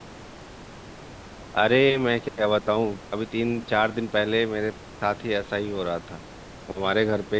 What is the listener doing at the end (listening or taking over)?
listening